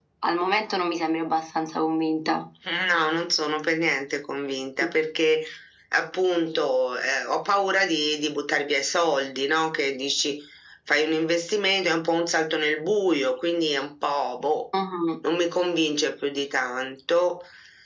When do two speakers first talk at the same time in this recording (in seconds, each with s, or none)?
none